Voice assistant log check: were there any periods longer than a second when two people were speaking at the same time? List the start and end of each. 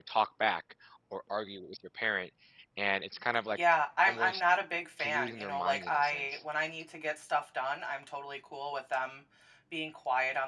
5.0-6.4

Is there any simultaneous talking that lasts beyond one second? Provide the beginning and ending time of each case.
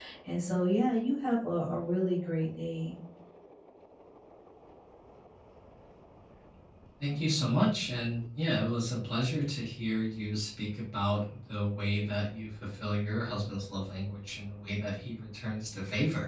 none

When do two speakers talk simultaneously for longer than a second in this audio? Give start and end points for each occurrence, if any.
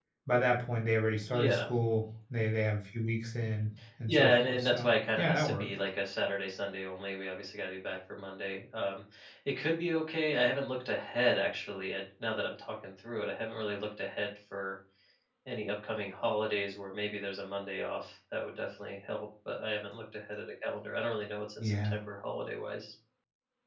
4.1-5.7

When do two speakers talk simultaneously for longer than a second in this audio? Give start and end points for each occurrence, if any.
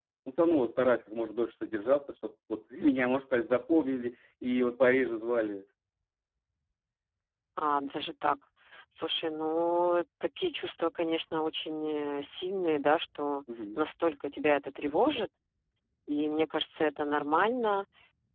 none

